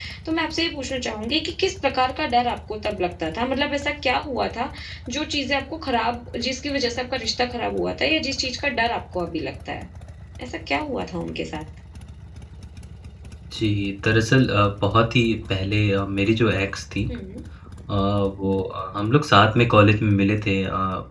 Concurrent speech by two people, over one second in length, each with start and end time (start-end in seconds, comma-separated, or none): none